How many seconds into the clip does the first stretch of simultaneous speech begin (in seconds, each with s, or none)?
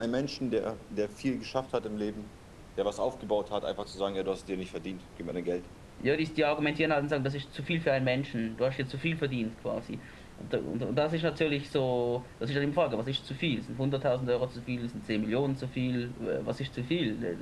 none